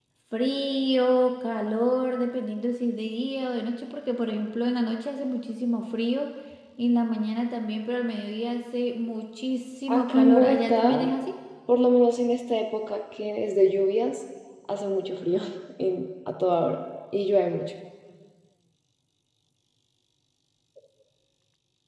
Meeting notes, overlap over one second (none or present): present